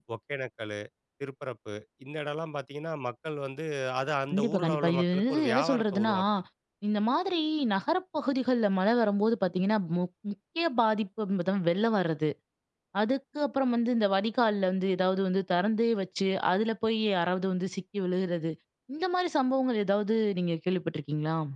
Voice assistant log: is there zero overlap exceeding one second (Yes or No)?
No